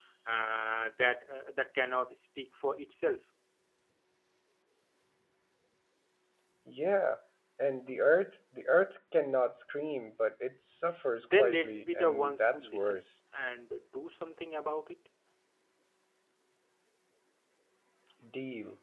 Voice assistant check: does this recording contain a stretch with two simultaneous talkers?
Yes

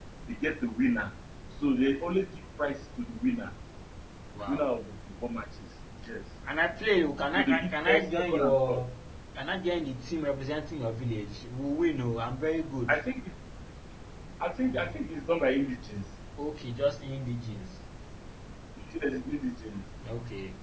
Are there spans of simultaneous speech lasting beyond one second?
Yes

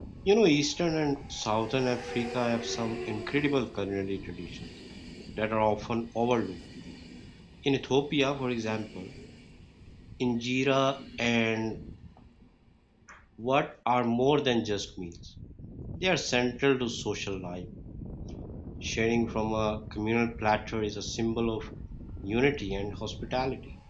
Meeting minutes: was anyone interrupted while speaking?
No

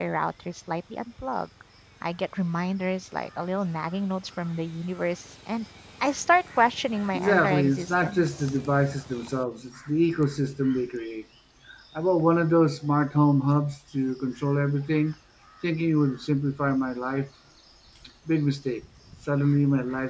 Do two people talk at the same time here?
Yes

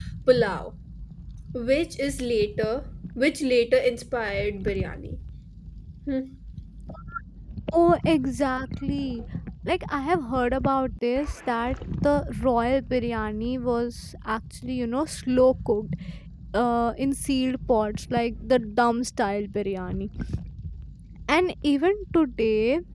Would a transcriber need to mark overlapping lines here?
No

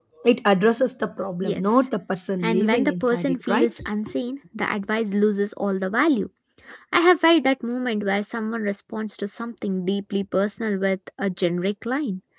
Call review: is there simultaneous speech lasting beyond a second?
Yes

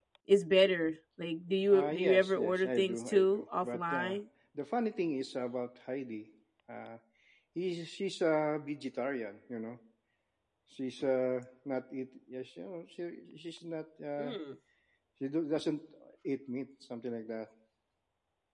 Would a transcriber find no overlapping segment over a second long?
No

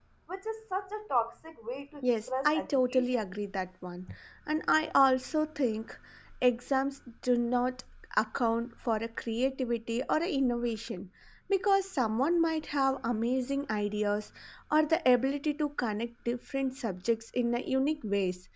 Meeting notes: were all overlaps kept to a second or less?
No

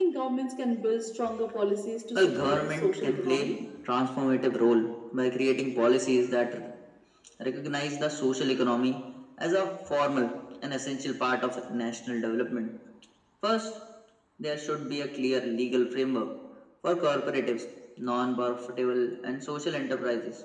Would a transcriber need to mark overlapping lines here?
Yes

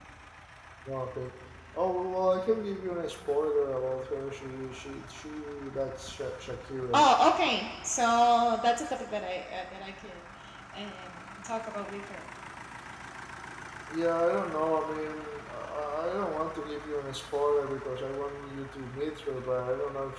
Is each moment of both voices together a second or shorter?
Yes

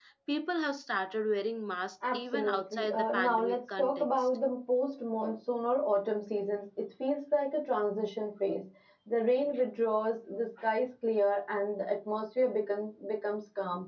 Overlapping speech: Yes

